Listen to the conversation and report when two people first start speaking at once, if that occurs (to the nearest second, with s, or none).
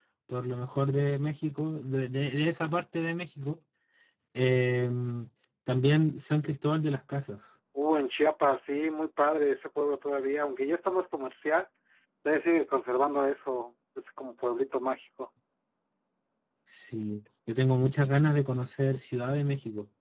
none